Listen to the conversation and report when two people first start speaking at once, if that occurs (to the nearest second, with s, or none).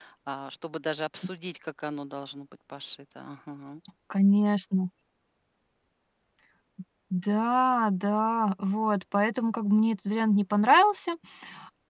none